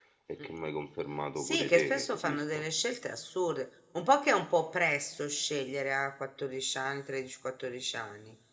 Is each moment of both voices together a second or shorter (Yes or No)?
No